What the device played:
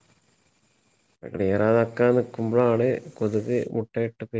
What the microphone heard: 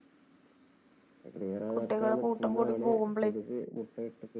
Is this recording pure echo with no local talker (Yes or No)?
No